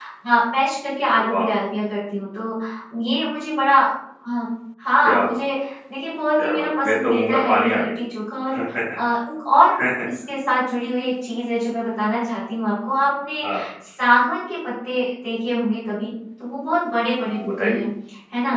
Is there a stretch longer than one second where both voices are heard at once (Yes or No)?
Yes